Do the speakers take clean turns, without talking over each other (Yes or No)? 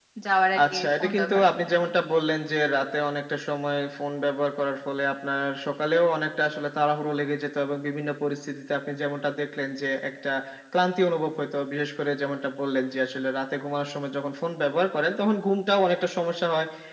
No